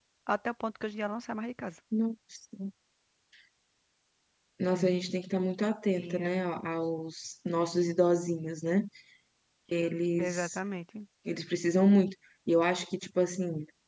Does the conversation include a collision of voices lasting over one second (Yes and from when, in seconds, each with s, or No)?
No